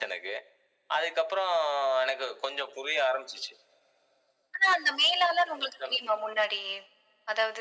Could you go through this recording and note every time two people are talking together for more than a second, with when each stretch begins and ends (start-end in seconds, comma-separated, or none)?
none